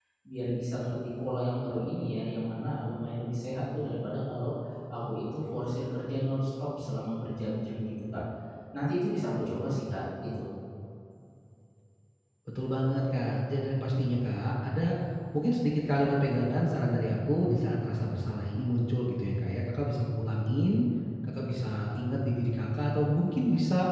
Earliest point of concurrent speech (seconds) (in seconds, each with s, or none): none